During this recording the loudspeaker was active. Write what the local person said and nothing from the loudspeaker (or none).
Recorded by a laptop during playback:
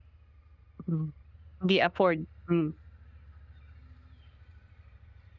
hmm, hindi afford, hmm.